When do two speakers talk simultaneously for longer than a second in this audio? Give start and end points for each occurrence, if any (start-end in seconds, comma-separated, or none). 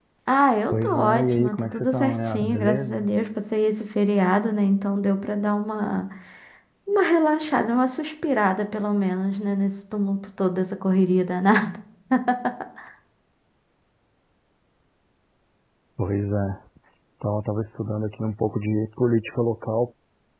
0.7-3.1